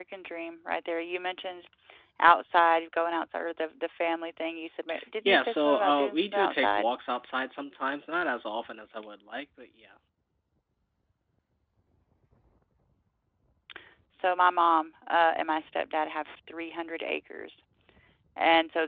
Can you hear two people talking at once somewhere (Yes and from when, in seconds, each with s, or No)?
Yes, from 5.2 s